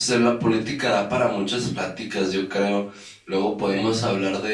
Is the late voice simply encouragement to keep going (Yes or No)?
Yes